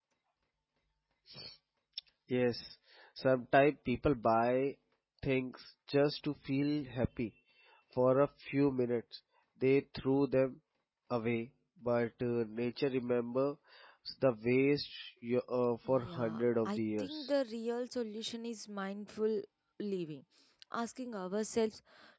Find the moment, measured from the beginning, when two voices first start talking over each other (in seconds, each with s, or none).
15.8 s